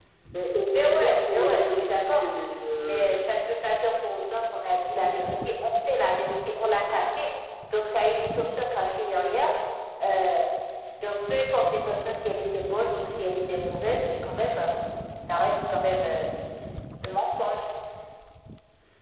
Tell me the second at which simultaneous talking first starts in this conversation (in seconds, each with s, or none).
0.8 s